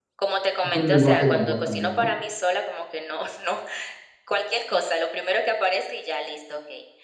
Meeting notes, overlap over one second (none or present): present